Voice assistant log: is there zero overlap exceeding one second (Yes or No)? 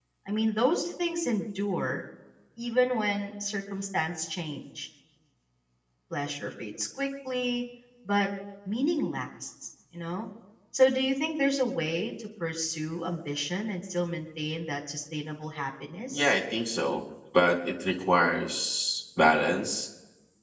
Yes